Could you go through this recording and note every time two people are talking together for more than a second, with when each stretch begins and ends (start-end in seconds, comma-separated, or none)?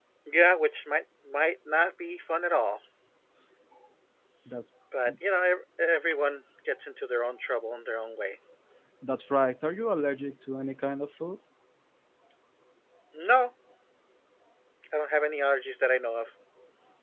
none